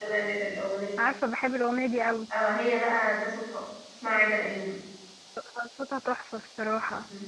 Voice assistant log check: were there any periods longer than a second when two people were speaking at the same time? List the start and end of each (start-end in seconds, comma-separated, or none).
none